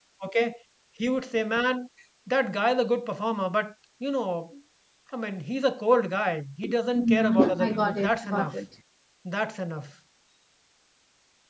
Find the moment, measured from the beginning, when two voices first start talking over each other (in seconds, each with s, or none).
6.9 s